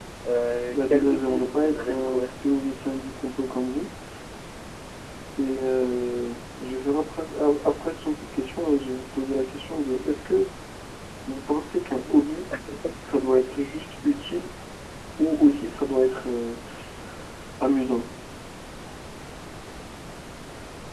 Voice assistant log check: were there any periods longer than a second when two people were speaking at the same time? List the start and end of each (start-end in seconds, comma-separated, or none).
0.7-2.3